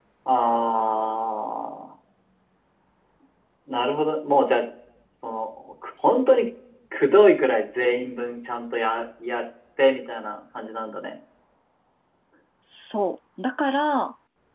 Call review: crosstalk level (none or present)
none